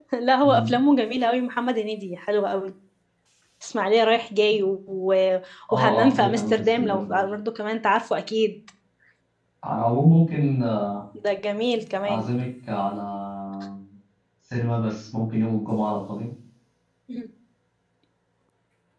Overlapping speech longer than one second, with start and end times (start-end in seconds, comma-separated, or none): 5.7-7.2